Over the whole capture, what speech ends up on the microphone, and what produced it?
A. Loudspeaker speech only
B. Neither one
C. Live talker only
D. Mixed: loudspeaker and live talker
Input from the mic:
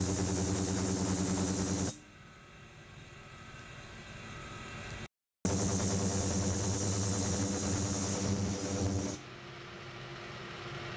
B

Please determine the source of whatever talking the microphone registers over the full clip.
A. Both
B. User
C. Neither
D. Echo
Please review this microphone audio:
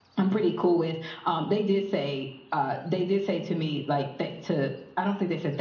D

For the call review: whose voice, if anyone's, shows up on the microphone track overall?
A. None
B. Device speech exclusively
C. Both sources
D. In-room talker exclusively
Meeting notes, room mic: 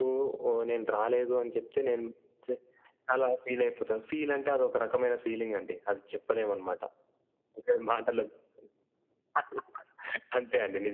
B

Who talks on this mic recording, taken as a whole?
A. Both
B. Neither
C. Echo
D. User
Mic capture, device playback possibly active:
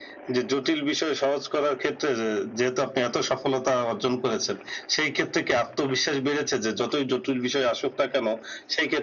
C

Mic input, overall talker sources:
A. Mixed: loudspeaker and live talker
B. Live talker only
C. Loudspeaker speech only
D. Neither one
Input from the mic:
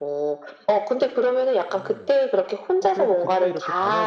A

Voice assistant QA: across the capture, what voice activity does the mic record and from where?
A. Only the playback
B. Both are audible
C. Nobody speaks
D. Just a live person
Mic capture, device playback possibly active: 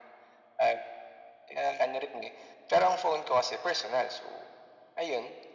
A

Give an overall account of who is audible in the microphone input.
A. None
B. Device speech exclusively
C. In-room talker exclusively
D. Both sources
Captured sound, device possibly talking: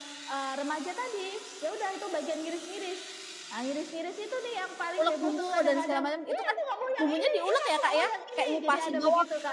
D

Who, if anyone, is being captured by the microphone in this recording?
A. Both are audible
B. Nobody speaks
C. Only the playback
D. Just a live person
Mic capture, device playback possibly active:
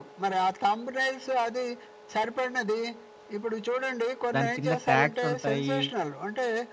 A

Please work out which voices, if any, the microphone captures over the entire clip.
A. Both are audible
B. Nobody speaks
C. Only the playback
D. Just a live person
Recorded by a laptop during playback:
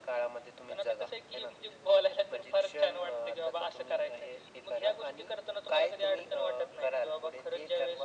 C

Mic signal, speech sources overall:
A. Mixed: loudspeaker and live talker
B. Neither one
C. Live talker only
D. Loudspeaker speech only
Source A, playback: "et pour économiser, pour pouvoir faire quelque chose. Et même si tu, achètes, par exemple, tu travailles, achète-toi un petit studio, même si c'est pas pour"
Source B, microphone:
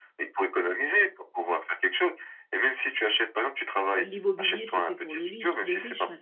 A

